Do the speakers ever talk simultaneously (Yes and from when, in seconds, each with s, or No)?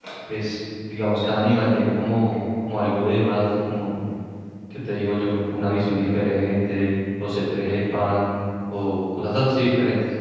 No